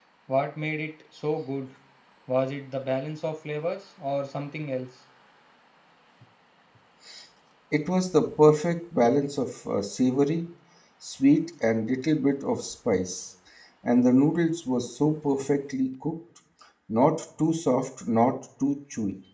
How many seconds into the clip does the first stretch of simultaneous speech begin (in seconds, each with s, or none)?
none